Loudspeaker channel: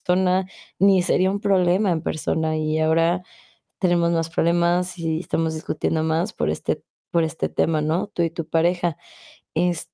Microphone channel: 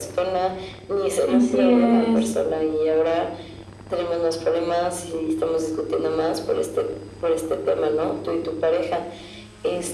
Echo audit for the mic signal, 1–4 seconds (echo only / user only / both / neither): both